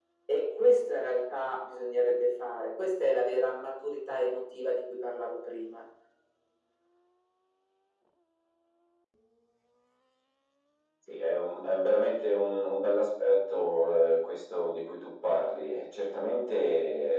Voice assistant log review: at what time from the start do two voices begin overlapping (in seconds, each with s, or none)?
none